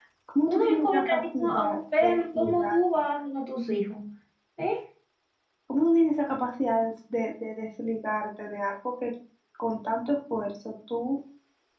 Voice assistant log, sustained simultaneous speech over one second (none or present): present